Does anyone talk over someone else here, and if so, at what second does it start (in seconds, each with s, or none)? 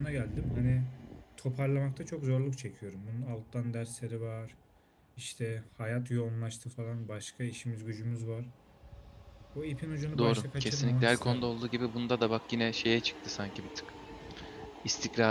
10.2 s